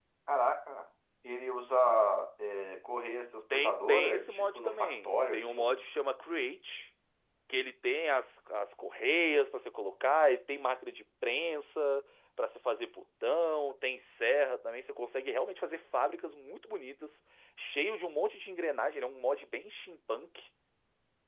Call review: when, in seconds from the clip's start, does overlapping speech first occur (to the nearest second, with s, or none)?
4 s